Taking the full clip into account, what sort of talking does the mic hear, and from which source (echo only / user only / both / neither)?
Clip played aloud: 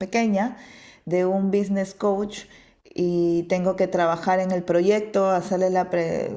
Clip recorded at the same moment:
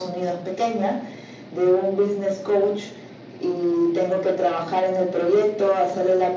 echo only